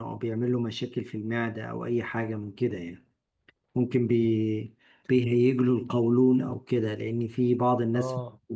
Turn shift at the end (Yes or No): No